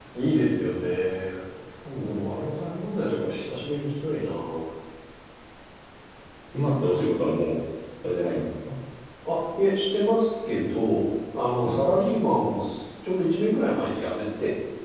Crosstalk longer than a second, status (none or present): none